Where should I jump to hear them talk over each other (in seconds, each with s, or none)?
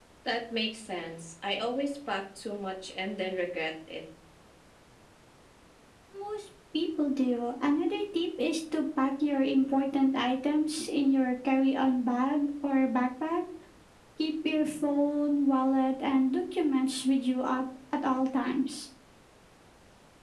none